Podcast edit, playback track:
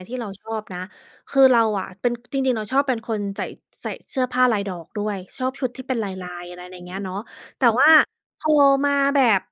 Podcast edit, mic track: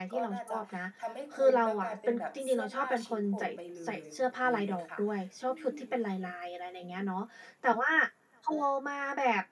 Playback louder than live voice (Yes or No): Yes